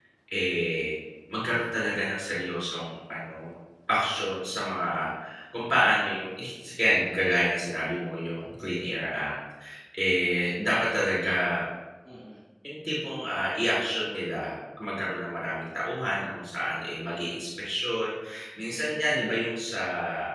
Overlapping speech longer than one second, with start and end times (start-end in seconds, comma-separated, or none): none